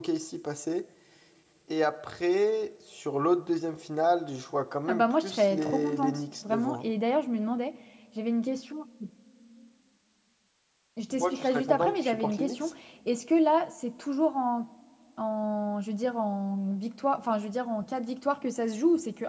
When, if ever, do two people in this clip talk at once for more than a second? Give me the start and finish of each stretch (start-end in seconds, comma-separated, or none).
4.9-6.8, 11.2-12.7